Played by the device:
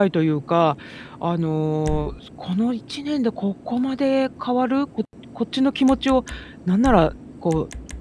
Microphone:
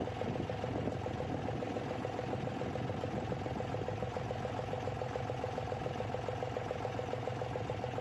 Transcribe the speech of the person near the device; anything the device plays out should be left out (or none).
none